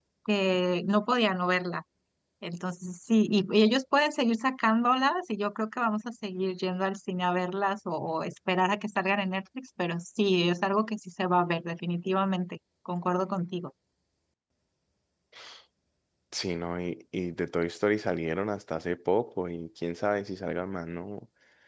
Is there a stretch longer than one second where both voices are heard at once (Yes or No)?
No